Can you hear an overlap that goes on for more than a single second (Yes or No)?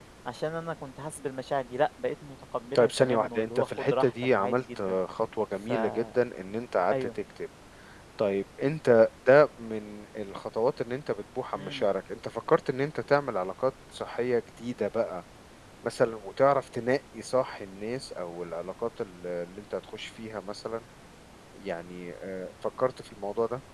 Yes